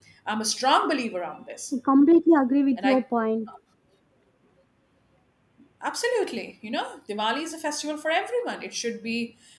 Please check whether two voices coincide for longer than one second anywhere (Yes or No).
No